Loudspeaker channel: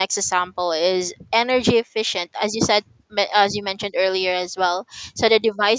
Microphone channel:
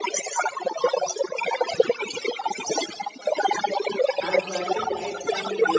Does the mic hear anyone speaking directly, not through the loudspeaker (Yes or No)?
Yes